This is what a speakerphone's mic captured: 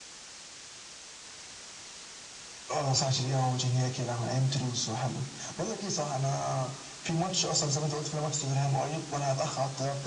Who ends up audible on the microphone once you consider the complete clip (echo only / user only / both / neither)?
echo only